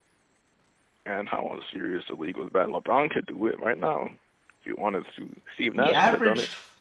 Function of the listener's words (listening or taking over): taking over